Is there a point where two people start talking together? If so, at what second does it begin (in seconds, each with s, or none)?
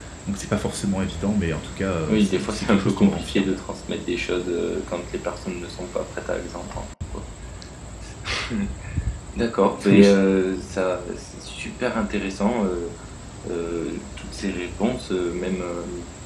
2.1 s